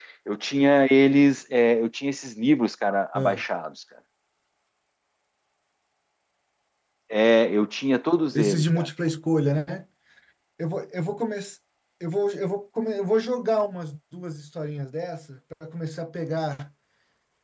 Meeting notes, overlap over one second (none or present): none